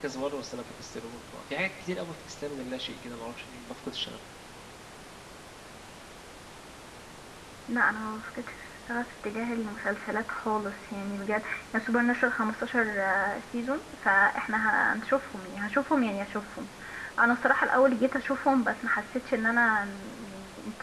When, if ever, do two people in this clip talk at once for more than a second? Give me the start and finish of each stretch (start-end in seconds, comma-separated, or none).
none